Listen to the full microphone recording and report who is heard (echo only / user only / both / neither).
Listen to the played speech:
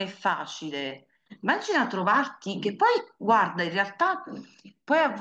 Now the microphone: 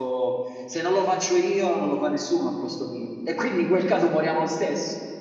user only